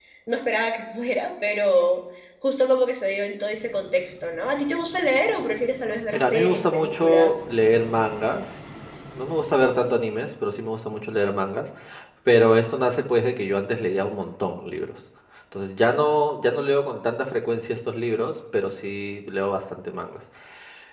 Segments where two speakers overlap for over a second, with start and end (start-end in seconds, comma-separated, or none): 6.1-7.3